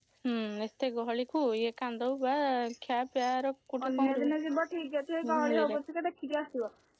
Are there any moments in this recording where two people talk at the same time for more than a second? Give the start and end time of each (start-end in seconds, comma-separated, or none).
none